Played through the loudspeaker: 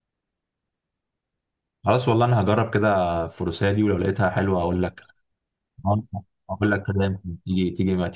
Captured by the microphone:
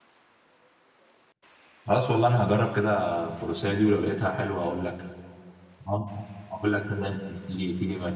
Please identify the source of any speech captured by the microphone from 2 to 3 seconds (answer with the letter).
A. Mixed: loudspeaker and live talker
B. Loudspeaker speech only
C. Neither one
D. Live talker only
B